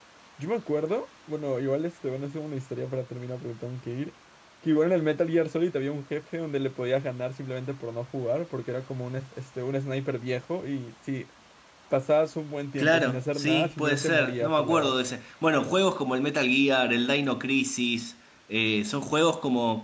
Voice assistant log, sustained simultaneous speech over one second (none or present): present